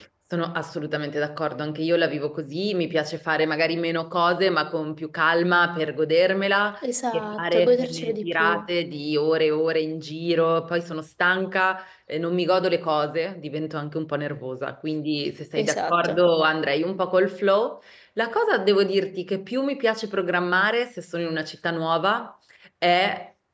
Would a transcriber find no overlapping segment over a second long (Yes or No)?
No